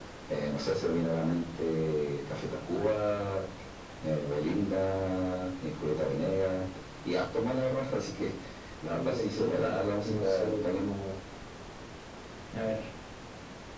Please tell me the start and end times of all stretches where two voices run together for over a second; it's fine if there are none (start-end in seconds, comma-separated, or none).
8.9-10.9